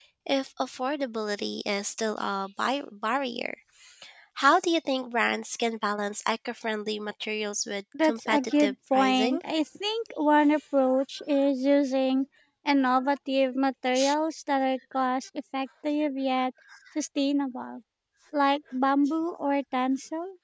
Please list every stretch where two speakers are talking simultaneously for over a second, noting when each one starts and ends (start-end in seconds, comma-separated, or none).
8.0-9.4